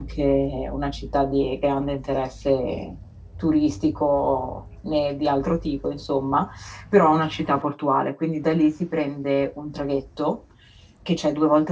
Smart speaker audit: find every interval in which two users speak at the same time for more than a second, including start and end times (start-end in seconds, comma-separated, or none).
none